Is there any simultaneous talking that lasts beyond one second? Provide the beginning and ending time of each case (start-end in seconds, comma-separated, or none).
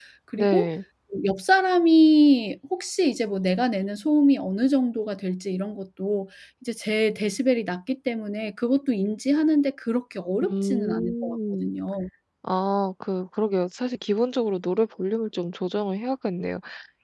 10.4-11.7